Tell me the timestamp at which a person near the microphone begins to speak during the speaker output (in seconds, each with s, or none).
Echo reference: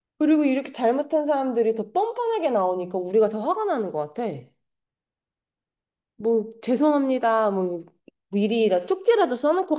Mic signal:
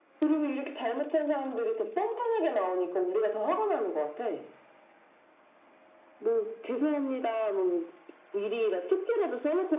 none